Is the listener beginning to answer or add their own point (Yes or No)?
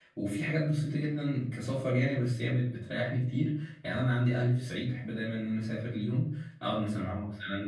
No